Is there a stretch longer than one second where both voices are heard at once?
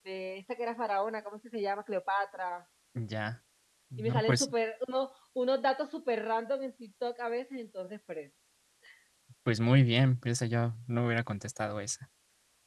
No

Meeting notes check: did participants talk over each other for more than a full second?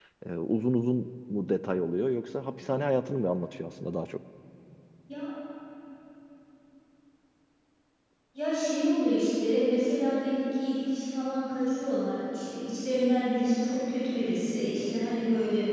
No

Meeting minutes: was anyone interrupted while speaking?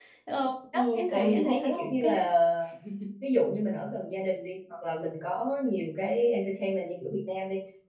Yes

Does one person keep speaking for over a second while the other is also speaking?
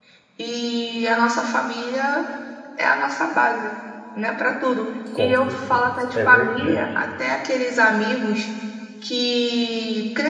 Yes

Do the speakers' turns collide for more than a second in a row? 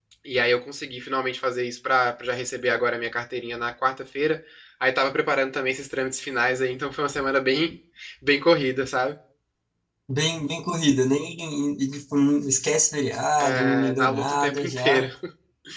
Yes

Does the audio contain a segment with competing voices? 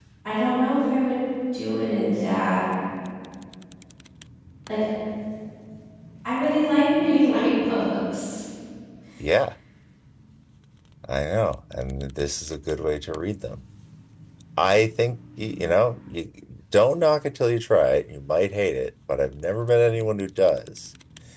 No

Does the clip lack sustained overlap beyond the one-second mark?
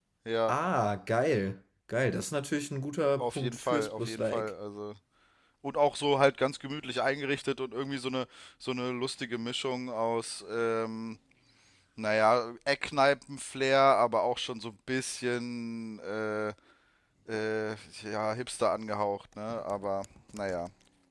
No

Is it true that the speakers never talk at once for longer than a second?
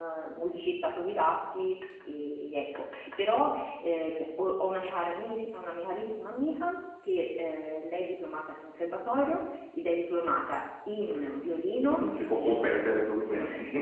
No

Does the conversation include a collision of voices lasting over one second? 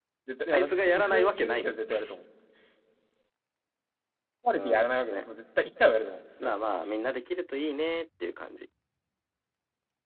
Yes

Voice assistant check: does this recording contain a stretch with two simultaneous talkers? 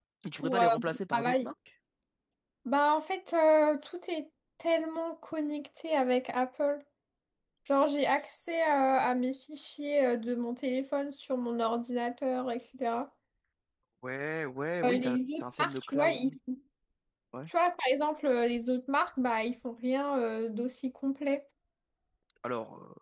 Yes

